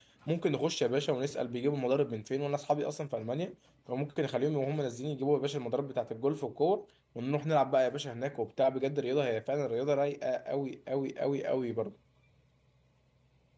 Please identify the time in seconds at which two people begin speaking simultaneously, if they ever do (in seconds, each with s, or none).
none